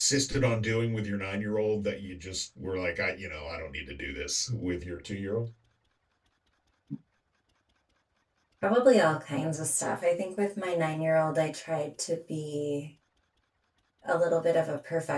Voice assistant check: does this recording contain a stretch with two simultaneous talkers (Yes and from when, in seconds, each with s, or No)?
No